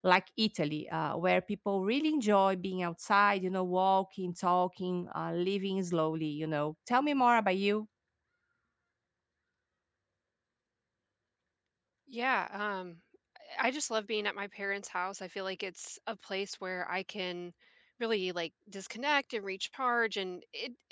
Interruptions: none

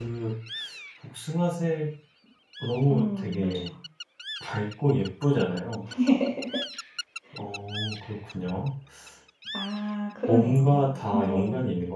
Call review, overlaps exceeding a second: present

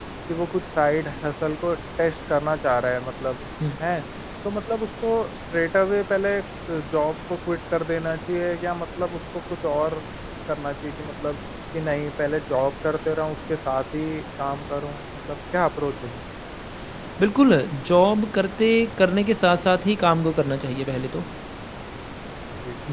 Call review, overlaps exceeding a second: none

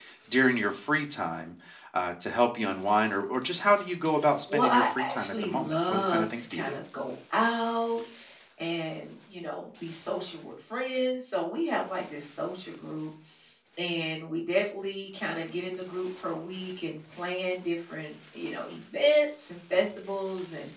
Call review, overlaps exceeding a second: present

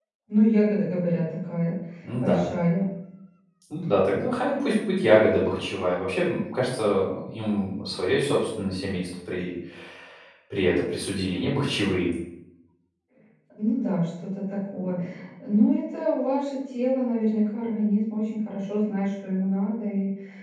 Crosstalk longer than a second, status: none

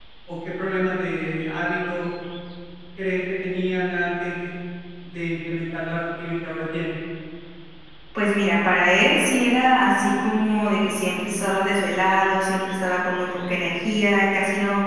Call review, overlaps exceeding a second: none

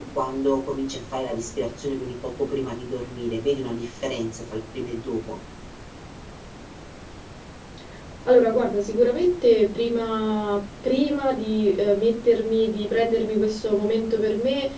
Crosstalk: none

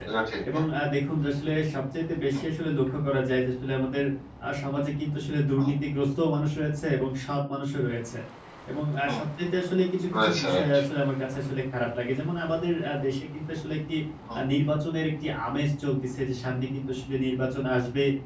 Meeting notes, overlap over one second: none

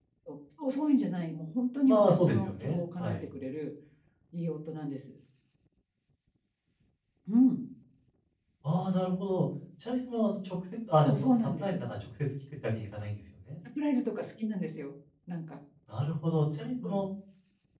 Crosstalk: present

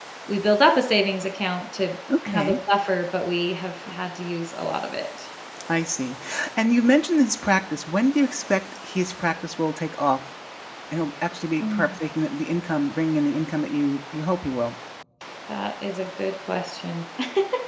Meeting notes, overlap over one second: none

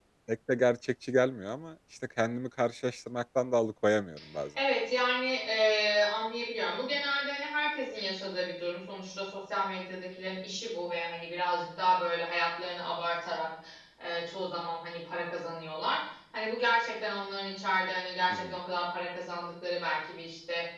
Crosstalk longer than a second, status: none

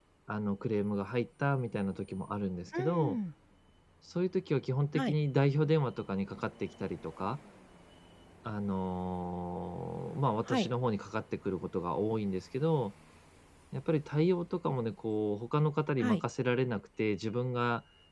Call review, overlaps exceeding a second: none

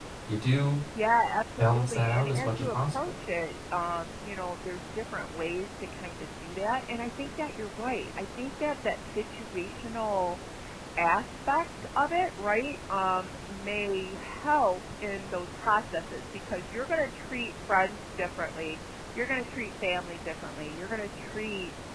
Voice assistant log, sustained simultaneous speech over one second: present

